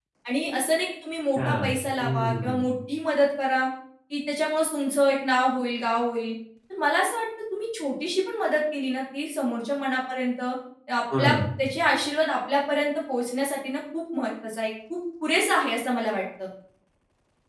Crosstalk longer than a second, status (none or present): present